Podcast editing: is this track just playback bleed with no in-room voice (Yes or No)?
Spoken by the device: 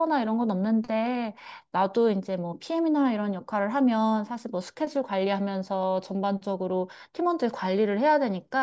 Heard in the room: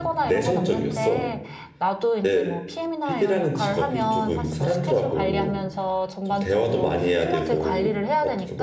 No